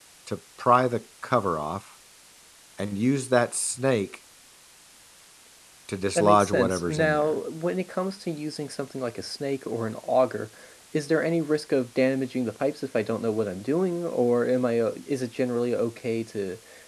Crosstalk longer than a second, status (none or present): present